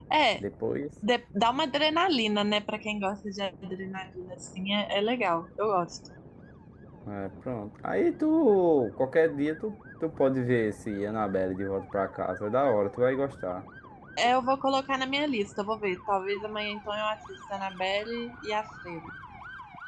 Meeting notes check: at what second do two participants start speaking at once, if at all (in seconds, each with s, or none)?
none